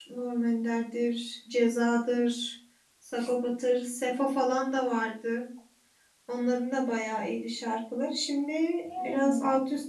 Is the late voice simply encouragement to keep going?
Yes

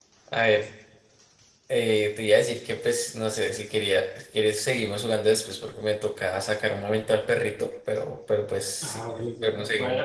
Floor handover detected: Yes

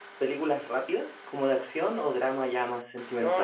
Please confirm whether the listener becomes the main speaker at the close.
Yes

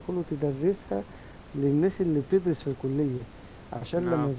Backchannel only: Yes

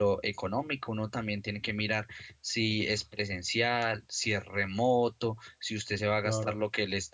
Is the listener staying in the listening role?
Yes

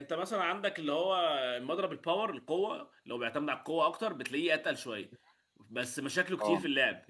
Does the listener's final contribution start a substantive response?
No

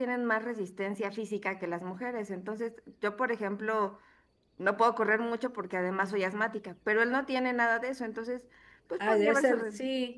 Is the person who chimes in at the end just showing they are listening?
No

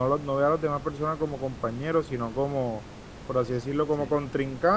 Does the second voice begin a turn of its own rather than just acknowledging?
No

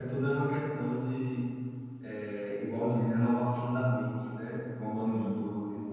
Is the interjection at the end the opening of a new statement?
No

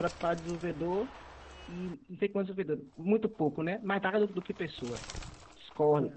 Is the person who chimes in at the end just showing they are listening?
Yes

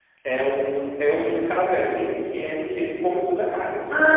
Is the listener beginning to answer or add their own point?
Yes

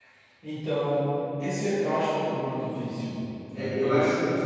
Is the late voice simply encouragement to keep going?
No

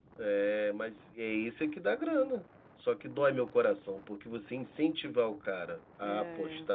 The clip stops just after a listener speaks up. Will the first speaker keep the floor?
Yes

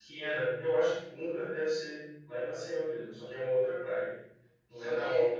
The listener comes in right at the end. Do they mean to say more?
Yes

